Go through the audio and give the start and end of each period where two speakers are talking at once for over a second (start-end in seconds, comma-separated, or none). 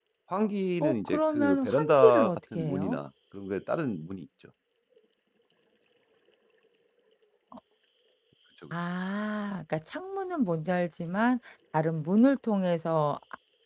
0.8-3.0